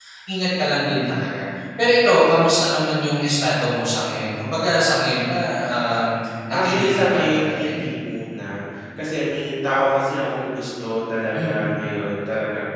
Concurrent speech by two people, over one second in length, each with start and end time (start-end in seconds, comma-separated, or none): 6.5-7.9